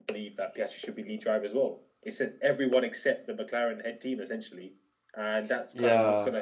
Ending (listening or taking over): listening